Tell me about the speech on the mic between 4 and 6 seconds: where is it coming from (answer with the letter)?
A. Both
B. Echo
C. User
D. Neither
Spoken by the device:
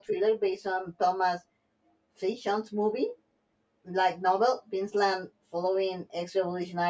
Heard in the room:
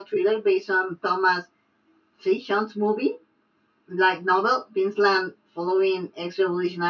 B